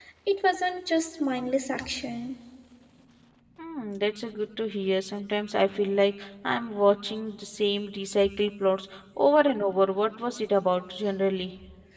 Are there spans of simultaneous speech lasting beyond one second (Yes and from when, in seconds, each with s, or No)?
No